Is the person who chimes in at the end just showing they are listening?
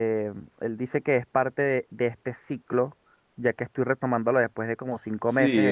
No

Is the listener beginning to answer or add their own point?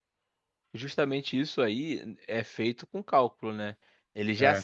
No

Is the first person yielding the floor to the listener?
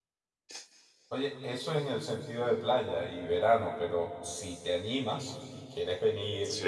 No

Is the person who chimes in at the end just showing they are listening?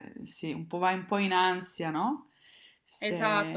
No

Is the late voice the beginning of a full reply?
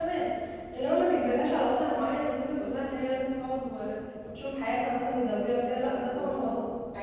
Yes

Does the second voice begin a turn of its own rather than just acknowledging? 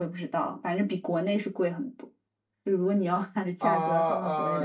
Yes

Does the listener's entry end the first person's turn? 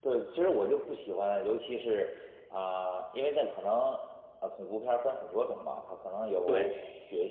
No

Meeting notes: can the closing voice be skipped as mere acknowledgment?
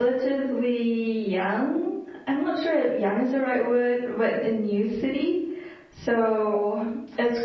Yes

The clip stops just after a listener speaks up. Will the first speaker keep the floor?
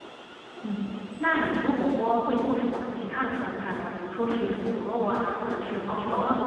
No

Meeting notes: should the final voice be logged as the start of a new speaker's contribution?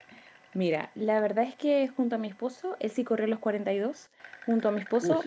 No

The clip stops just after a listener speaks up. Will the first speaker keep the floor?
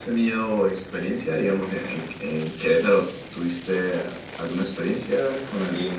No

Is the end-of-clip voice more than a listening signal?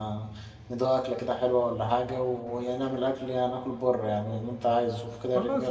Yes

